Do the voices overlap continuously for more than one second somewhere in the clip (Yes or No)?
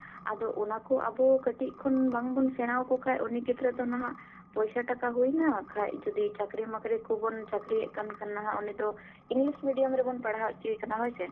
No